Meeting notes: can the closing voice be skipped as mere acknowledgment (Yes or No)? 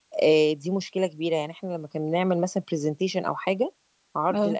Yes